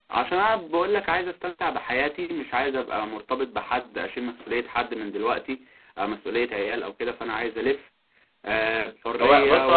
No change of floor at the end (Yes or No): No